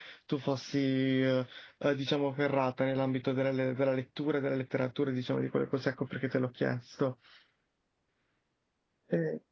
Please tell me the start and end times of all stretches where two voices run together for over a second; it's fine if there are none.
none

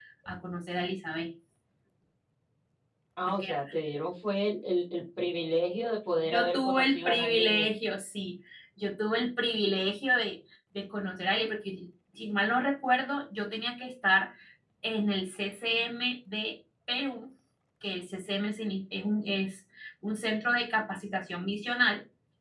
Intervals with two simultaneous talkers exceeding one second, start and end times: 6.2-7.7

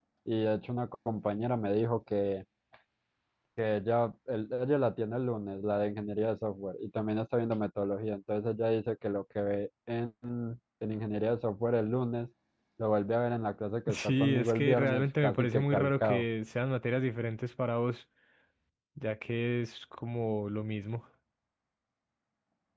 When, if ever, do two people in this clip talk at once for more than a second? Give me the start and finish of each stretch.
13.9-16.2

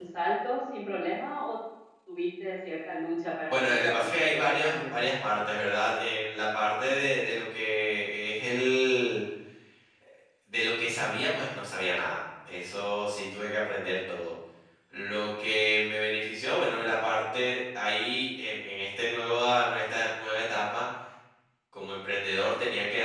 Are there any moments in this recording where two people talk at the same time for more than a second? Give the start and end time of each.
3.5-4.9

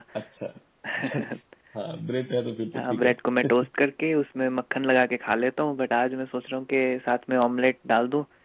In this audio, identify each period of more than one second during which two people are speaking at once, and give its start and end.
none

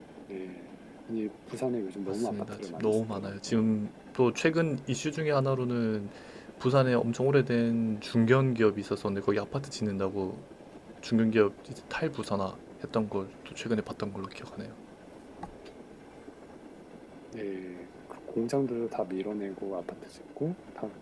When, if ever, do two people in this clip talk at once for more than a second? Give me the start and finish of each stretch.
2.1-3.6

